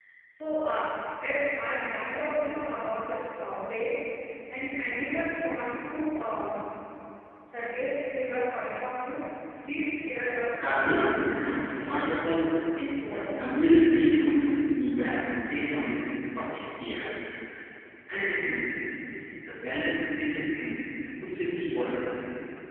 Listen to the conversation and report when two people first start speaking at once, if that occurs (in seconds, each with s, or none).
10.6 s